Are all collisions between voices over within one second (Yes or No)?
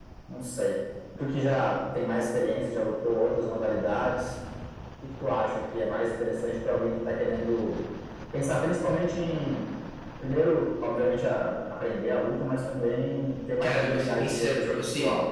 No